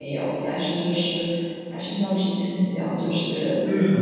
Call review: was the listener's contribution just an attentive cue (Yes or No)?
Yes